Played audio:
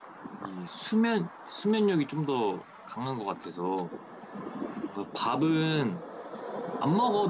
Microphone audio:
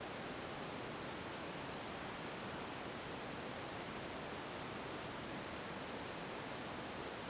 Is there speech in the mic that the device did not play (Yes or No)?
No